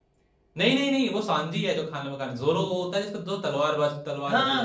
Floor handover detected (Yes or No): Yes